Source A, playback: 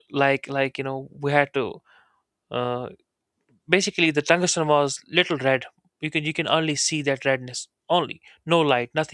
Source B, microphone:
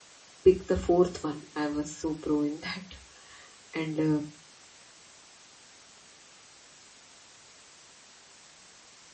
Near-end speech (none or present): present